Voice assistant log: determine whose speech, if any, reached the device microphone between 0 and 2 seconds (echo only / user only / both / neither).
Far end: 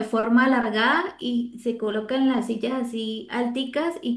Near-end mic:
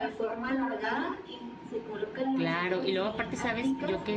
echo only